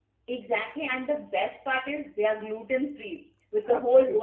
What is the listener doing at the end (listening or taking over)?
listening